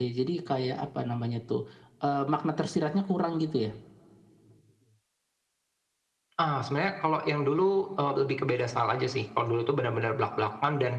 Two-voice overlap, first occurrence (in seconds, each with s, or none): none